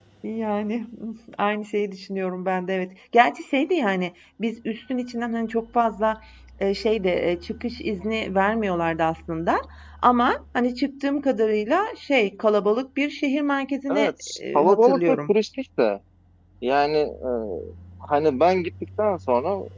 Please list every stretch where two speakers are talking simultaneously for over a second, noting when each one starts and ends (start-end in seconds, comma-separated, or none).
13.9-15.3